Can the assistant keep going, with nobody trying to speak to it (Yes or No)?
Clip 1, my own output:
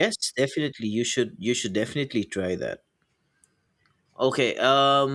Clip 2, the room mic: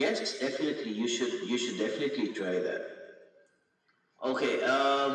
Yes